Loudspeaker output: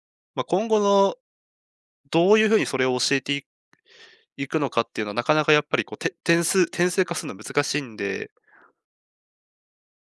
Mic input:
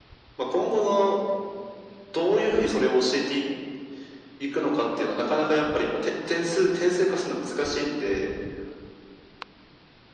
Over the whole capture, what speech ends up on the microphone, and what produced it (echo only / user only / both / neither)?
echo only